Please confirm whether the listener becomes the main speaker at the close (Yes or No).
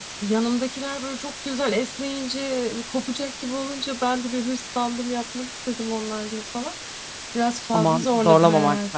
Yes